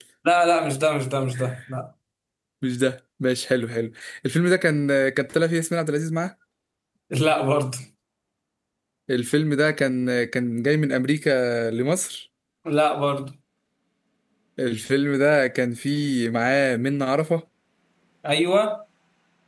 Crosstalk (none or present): none